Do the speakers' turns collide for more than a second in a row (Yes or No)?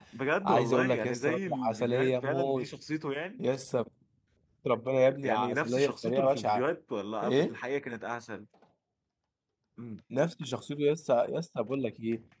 Yes